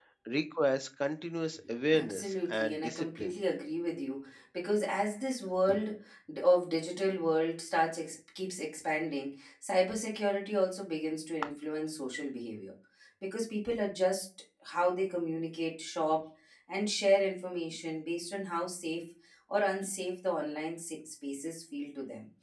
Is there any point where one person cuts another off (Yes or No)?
Yes